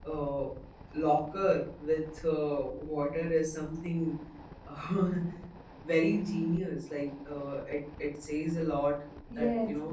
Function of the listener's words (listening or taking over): taking over